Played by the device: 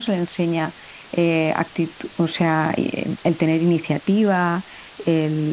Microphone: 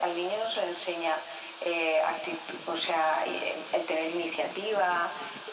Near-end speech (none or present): none